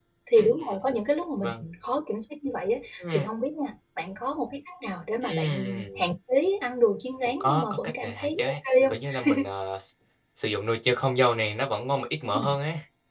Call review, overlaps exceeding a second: present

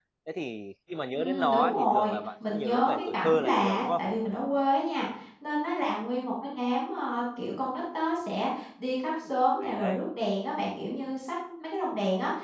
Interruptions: present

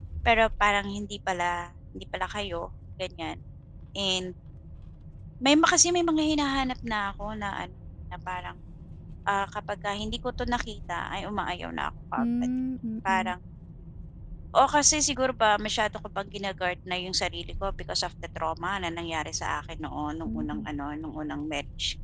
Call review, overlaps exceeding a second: none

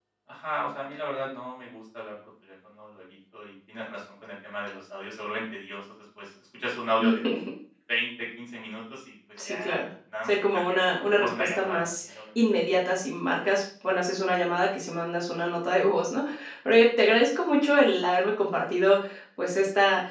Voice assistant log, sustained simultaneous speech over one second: present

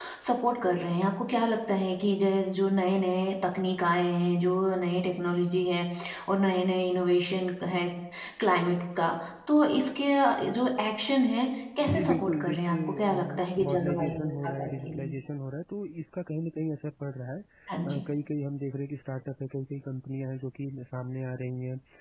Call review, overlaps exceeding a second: present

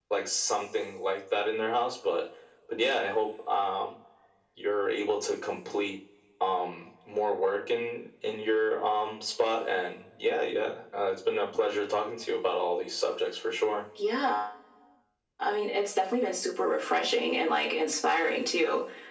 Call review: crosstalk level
none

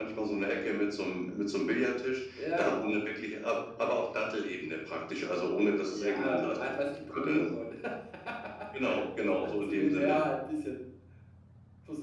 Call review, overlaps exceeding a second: present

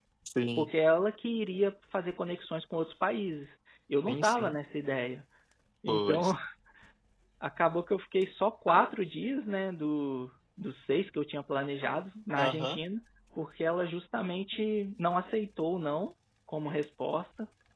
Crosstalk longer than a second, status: none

